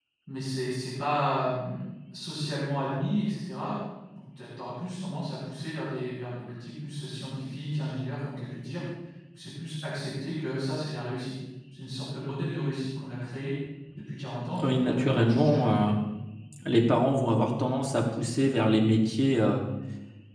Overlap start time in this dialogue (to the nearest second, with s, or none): 15 s